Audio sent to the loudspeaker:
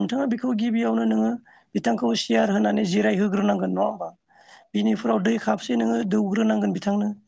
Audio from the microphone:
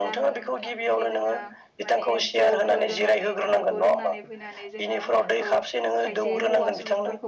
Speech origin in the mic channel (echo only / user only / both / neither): both